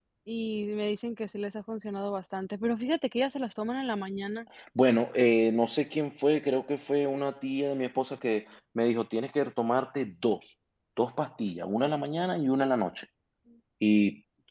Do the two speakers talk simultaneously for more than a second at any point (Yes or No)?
No